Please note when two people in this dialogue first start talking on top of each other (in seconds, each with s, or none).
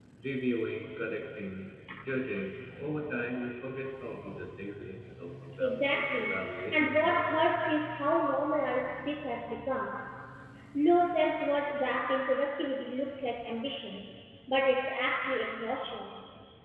5.6 s